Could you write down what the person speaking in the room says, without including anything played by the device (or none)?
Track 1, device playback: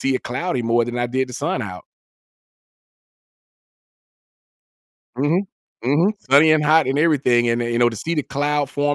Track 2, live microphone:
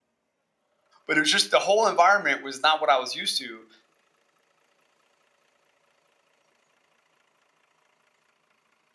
but it was just the whole environment was not what I was used to,